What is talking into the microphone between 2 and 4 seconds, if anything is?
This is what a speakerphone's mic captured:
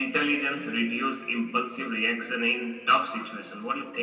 echo only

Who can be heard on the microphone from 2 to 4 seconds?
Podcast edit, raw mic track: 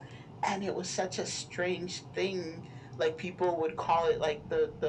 echo only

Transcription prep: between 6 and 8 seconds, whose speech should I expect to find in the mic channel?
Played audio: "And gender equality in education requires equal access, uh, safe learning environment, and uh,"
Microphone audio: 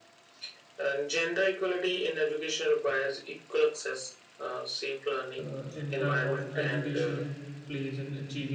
both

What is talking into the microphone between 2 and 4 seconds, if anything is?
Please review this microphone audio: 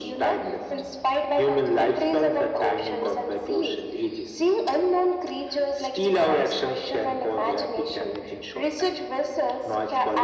echo only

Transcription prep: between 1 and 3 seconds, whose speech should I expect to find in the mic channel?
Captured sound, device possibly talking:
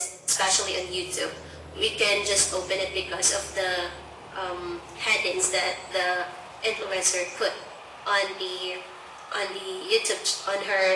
echo only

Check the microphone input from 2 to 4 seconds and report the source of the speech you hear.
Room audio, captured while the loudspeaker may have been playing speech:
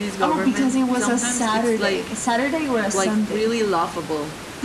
both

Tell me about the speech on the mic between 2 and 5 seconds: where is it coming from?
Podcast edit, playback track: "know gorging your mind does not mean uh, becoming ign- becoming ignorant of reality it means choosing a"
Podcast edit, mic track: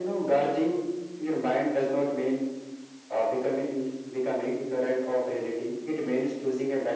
echo only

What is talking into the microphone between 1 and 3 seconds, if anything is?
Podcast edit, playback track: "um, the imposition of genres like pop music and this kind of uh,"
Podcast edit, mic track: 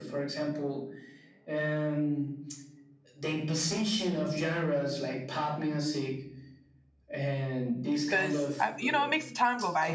echo only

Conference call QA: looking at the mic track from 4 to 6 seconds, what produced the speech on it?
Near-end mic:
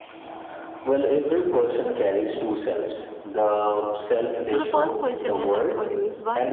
both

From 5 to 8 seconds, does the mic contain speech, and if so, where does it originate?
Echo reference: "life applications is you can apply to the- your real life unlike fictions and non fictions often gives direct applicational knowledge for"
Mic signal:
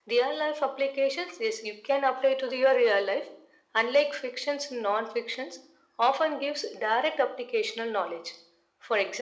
echo only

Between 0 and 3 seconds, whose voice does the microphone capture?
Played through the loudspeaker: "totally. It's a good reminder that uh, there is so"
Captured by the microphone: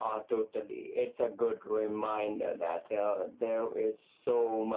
echo only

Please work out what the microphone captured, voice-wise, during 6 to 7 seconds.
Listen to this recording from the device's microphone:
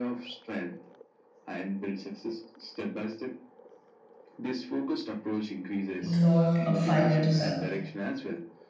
both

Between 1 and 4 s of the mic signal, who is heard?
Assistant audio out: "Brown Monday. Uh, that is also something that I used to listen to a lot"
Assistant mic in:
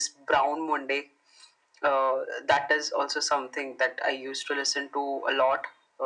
echo only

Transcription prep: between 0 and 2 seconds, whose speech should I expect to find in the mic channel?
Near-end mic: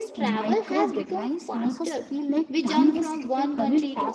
both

